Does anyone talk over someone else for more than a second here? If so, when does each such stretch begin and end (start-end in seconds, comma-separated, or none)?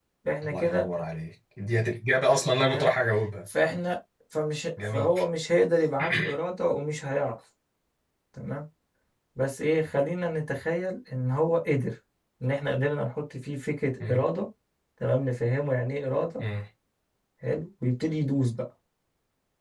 none